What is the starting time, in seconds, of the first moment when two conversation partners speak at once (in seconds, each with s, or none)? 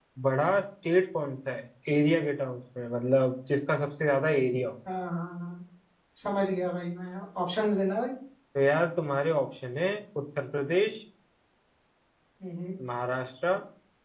none